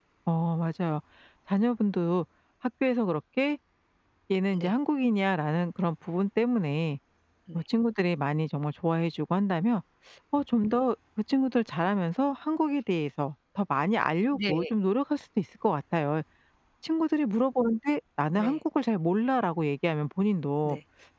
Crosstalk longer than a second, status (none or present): none